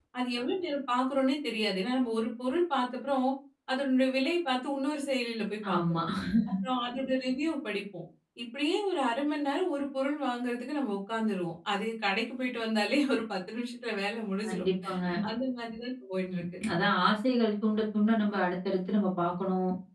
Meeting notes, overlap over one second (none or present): none